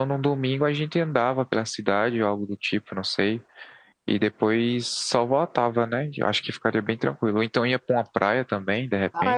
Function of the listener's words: taking over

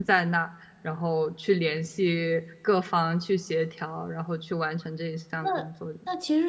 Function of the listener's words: taking over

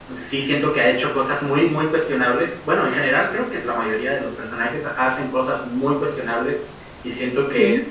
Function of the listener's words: listening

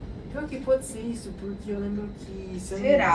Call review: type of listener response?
listening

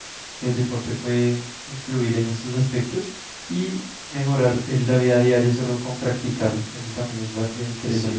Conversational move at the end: taking over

